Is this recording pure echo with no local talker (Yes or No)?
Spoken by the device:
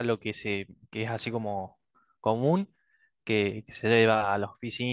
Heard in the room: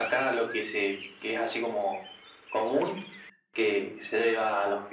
Yes